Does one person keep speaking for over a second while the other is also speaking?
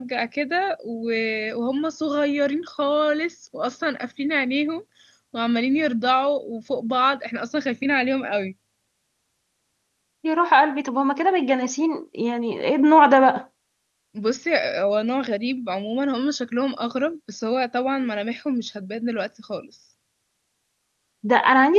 No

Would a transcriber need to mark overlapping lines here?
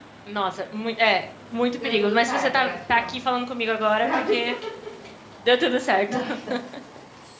Yes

